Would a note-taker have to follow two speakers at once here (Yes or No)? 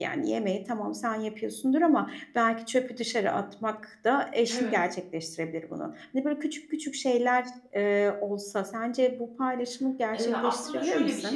Yes